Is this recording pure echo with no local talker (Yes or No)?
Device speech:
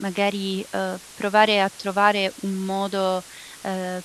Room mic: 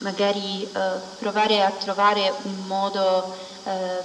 Yes